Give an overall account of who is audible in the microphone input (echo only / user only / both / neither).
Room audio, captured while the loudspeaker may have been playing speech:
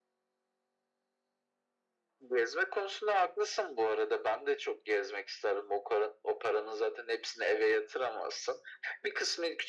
echo only